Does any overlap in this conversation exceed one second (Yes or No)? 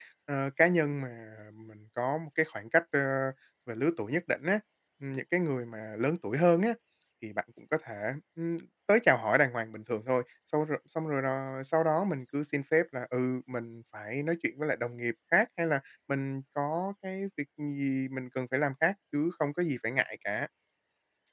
No